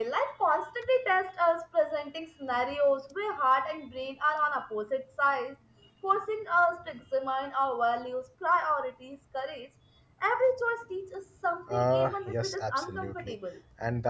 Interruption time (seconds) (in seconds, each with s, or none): 11.7 s